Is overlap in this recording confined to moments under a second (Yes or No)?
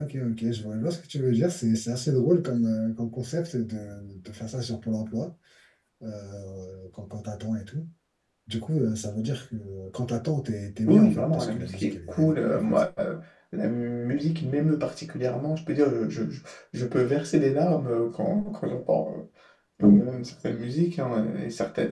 No